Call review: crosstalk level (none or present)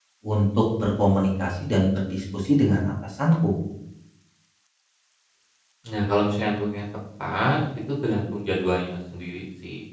none